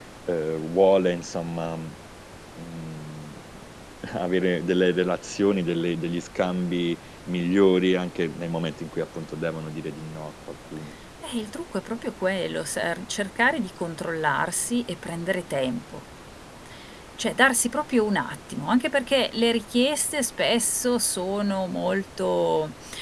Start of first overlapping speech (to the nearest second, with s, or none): none